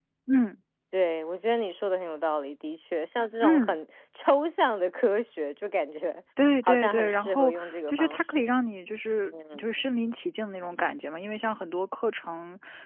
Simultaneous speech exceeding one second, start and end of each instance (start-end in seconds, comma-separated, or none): 6.7-8.5